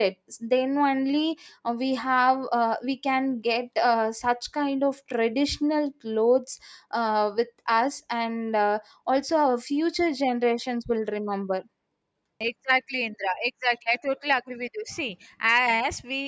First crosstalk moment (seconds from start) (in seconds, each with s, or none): none